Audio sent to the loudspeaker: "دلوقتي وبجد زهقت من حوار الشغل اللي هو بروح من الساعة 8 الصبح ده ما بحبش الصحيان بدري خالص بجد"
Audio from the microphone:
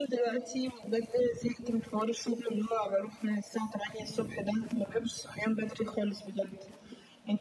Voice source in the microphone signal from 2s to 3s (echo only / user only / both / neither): echo only